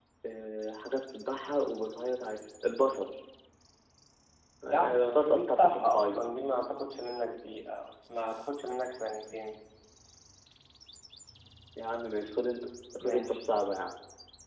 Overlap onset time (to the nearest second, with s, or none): 5 s